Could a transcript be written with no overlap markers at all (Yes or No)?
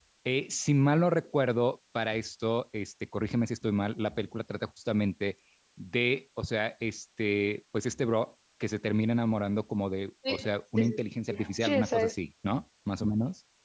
No